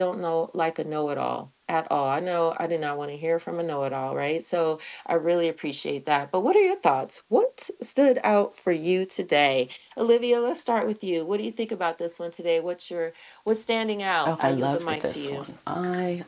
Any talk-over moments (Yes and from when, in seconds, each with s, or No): Yes, from 14.2 s